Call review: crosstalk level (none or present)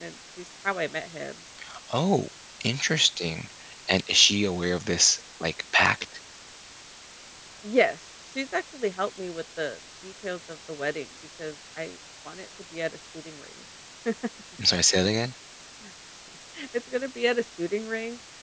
none